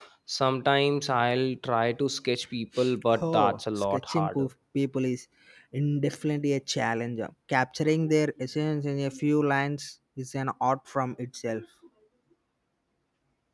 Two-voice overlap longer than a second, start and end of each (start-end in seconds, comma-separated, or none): 3.3-4.5